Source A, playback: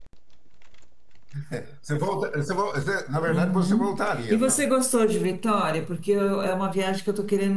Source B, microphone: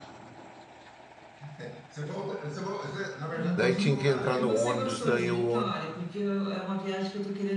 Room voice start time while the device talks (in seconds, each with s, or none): 3.5 s